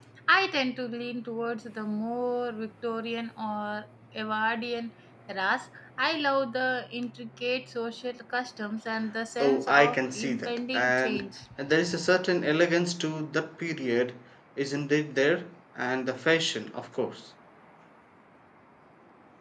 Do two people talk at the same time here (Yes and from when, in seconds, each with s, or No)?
Yes, from 9.4 s